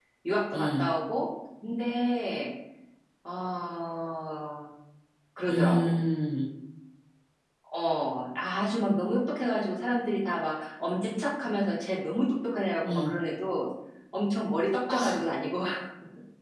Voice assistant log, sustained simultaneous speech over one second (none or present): none